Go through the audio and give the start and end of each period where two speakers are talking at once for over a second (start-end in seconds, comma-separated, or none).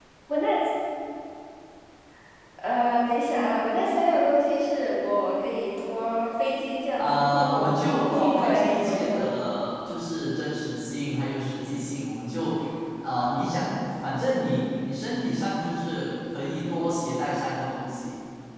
7.0-9.3